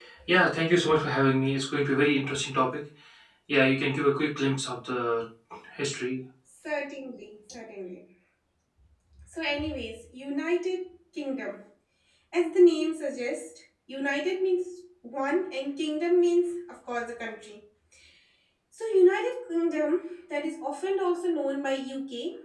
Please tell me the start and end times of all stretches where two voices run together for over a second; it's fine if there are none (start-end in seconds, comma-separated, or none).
none